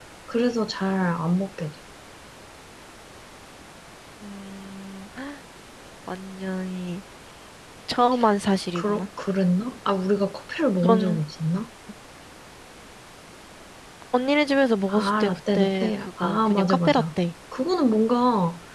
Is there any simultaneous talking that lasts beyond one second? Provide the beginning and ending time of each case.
14.9-17.0

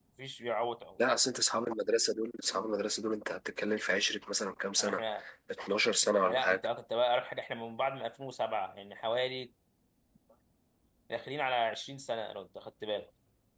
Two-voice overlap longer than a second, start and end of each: none

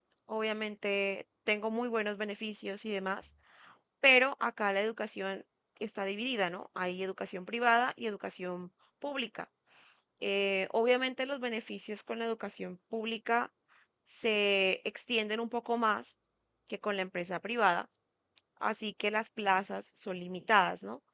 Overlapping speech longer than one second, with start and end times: none

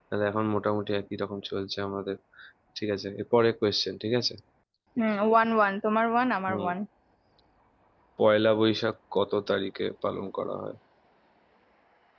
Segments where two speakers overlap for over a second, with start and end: none

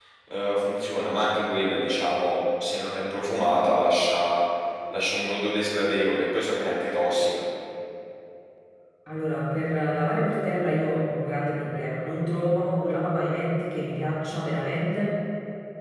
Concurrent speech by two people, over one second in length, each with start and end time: none

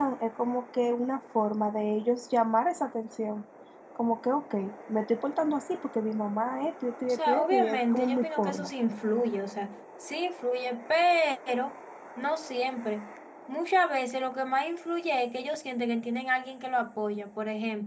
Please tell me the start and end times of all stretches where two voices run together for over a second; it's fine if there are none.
7.0-8.7

